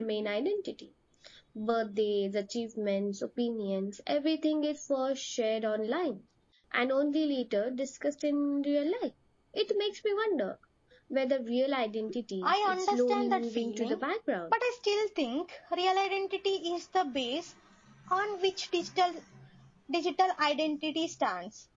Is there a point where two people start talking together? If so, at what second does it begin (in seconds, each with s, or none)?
12.4 s